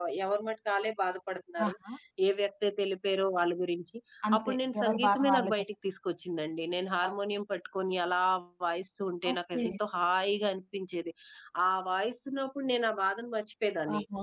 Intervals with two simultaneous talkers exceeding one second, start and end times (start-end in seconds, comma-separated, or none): 4.4-5.6